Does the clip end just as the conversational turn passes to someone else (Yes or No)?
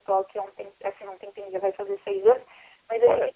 No